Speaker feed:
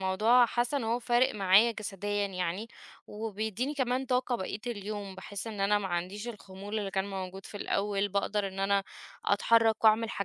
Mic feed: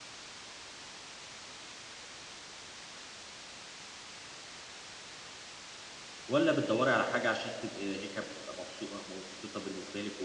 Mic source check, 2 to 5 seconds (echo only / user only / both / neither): neither